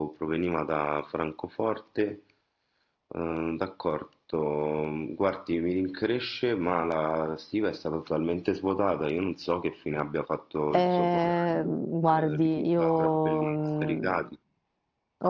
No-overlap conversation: No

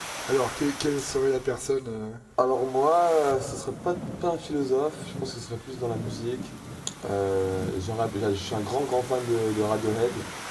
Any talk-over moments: No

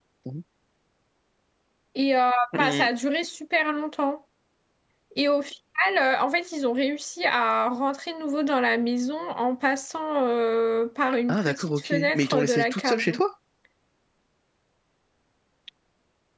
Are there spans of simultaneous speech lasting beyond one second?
Yes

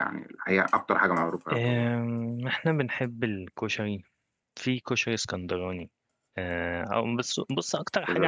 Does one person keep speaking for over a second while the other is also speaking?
No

